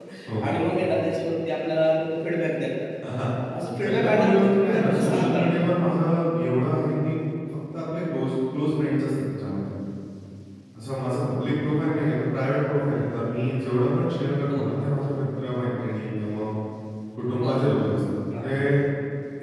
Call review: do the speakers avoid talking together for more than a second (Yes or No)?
No